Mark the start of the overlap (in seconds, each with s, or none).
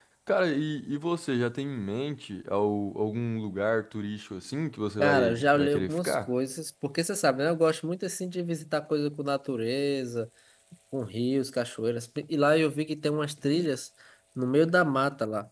5.0 s